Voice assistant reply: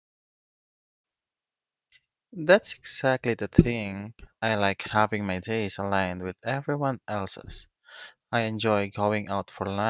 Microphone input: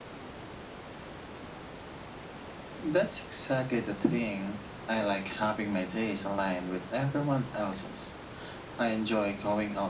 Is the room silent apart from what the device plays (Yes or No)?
Yes